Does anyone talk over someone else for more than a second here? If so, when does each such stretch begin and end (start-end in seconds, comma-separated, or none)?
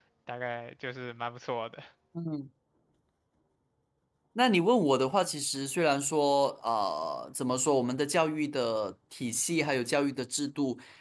none